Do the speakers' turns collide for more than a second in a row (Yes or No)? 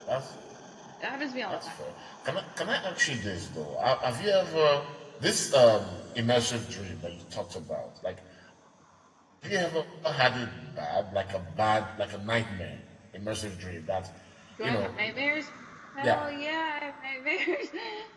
No